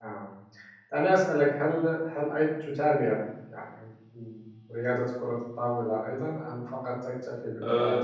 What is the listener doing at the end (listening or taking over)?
taking over